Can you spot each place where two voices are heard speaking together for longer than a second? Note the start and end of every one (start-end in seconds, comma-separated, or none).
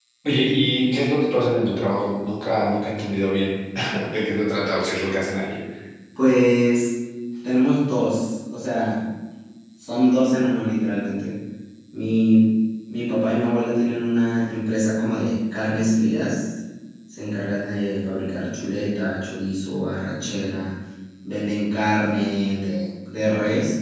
none